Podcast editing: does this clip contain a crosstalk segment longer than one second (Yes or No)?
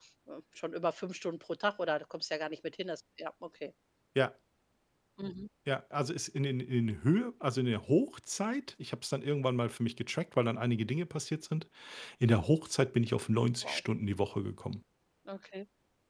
No